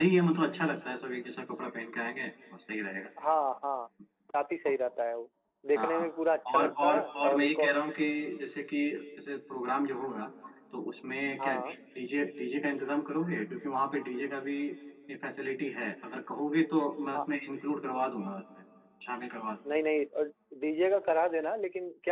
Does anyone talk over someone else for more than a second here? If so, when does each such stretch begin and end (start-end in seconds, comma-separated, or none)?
6.5-7.7